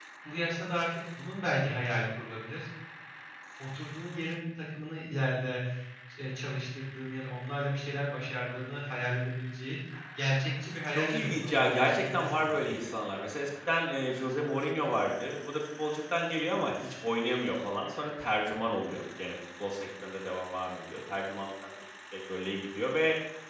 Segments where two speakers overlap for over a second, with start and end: 10.9-12.9

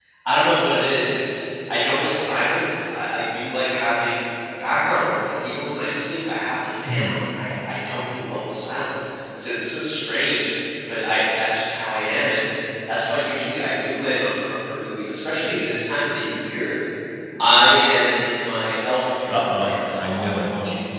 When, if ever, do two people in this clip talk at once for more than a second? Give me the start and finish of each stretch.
19.3-20.5

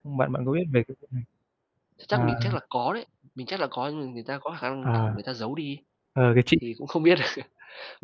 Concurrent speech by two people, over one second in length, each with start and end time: none

